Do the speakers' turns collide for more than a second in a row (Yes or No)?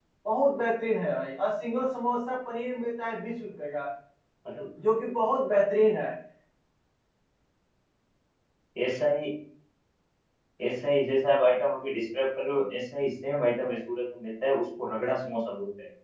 No